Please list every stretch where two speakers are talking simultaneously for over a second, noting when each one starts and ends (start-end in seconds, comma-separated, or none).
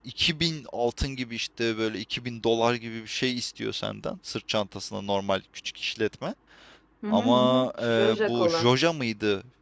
7.1-8.7